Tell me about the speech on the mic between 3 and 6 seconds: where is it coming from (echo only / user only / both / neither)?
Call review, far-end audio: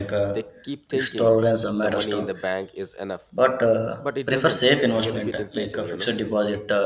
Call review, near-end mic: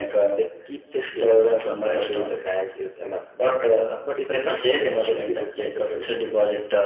echo only